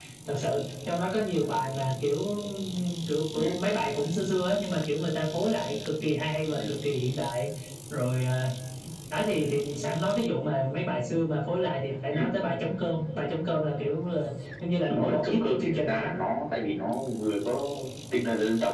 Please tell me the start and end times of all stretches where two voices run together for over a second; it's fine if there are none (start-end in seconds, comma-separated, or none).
14.9-16.1